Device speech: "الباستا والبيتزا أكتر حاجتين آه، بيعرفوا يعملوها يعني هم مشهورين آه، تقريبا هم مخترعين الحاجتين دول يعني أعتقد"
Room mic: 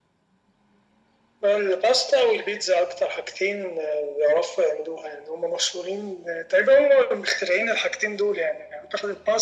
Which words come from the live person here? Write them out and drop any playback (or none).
none